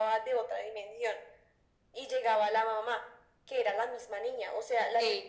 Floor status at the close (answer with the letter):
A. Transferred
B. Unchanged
B